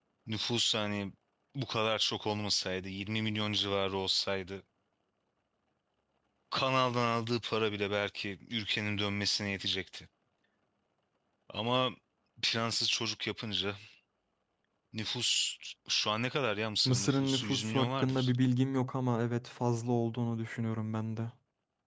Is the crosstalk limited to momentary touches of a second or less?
No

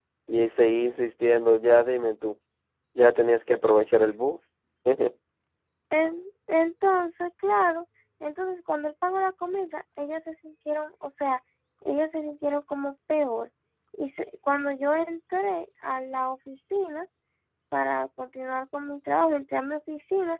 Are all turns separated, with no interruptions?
Yes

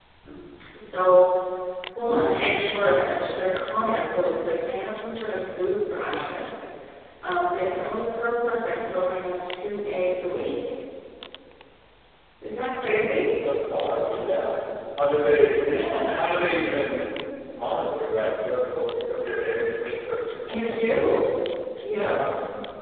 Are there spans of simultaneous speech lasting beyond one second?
No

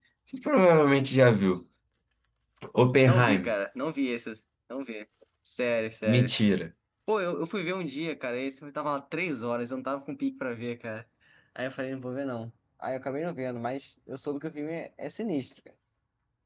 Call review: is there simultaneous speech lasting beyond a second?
No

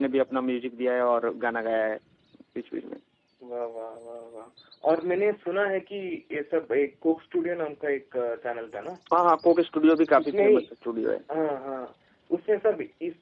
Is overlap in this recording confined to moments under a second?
Yes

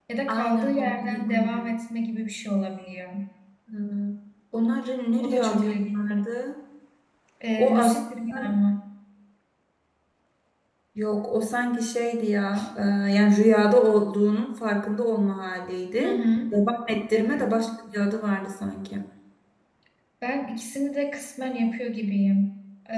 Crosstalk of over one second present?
Yes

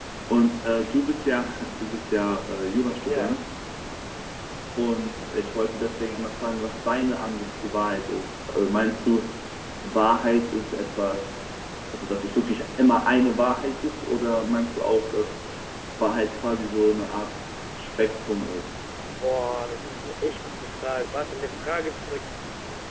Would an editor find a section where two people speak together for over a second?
No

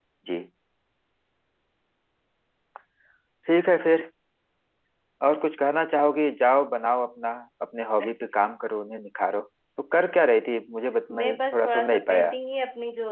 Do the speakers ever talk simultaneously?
Yes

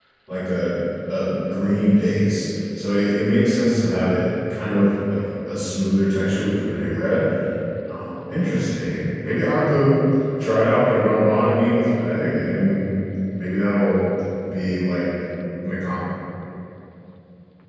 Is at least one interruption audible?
No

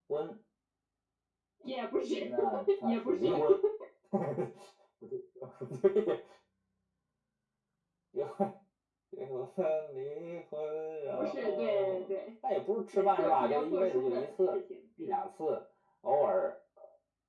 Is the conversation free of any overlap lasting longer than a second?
No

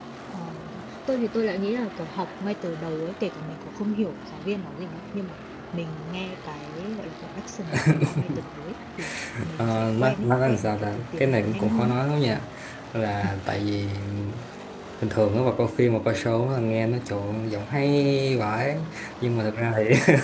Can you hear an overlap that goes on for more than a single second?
Yes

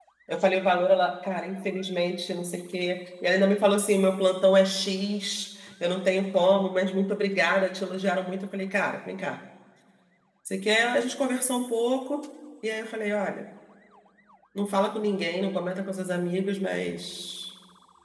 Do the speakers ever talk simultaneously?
No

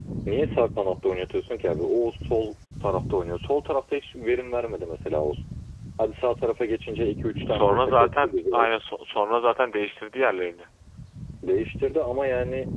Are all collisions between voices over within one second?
No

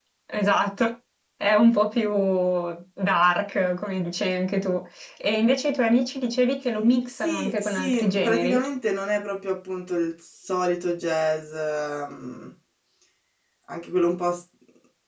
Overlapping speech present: Yes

